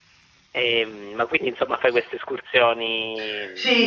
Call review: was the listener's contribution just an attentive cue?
No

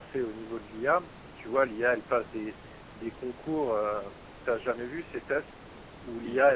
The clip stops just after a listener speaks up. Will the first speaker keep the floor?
Yes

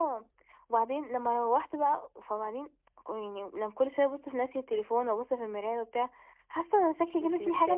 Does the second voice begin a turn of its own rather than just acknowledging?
No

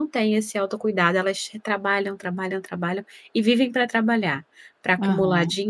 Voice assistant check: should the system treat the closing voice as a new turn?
No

